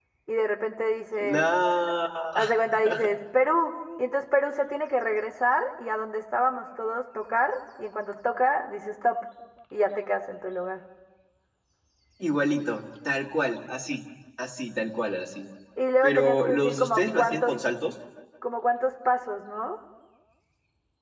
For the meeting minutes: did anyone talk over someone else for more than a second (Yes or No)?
Yes